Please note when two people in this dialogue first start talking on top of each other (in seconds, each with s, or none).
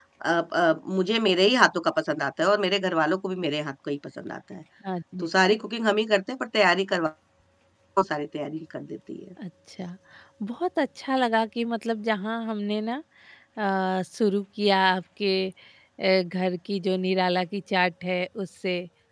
none